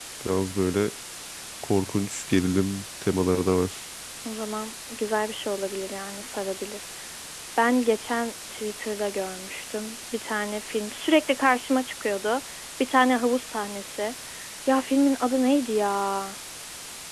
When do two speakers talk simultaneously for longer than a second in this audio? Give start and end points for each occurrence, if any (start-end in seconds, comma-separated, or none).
none